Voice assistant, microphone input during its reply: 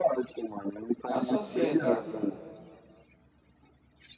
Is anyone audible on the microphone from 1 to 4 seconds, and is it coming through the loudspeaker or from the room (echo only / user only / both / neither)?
both